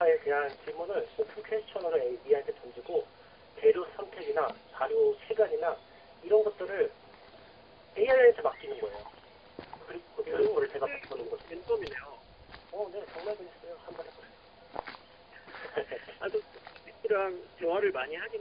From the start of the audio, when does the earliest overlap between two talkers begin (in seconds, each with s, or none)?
10.2 s